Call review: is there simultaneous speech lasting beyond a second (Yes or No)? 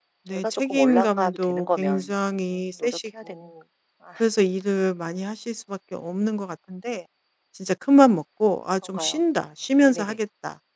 Yes